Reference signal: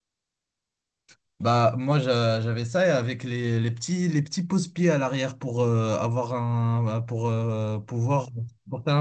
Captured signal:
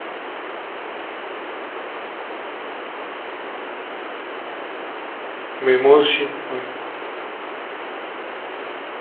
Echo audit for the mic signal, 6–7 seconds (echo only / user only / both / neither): user only